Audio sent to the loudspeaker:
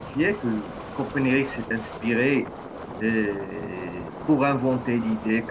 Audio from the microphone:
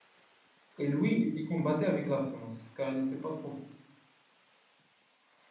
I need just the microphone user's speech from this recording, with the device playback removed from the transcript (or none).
Et lui, il les combattait avec la science, car il n'était pas trop fort.